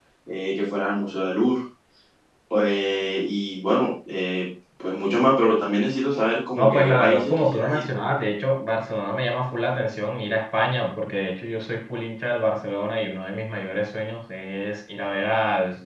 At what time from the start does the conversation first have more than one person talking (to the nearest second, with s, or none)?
7 s